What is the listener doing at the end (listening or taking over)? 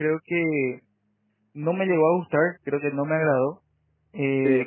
listening